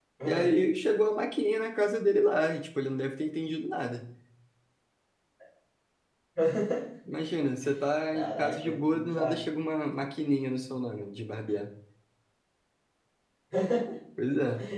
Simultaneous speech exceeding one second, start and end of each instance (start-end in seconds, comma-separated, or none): 8.1-9.4